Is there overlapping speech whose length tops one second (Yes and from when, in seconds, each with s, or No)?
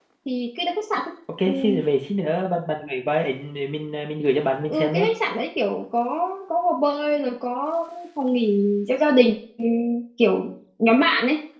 No